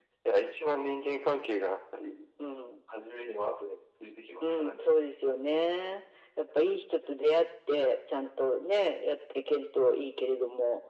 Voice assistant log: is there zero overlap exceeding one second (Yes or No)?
Yes